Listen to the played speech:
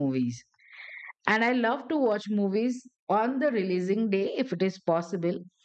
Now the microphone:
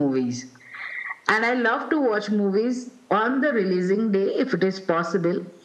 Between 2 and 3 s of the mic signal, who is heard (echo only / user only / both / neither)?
echo only